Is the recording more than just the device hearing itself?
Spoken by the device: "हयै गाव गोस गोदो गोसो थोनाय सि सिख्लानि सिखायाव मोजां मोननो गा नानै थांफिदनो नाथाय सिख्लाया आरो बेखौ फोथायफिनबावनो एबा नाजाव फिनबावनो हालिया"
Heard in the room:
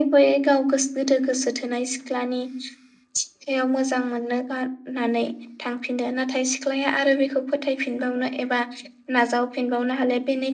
No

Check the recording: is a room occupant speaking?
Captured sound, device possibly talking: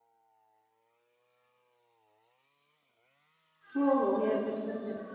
Yes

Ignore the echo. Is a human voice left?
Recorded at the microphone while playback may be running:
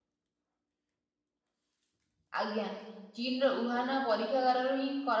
Yes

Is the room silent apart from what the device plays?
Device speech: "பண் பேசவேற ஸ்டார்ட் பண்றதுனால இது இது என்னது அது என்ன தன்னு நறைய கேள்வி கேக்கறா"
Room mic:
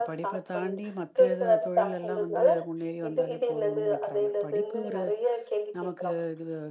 No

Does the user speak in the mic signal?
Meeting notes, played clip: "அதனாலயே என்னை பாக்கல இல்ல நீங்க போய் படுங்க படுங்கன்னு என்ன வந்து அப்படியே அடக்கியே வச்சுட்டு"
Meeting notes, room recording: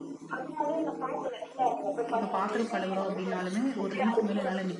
Yes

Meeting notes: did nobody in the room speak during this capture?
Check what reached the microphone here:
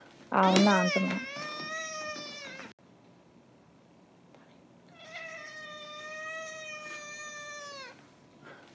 No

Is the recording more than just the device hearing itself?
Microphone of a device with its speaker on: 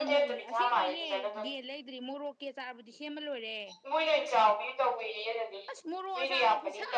Yes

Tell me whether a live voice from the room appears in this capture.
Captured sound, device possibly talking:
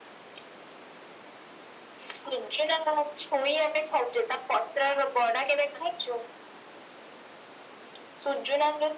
No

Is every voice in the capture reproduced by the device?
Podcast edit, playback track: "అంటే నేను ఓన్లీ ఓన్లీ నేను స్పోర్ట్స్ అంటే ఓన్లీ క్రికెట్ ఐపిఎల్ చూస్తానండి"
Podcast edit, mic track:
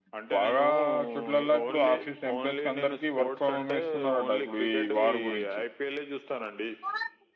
No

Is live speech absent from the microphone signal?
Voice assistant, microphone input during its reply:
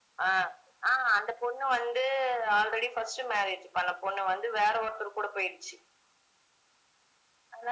Yes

